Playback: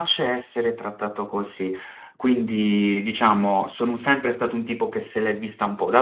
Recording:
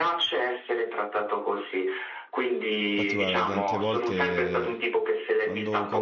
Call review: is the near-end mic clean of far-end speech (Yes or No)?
No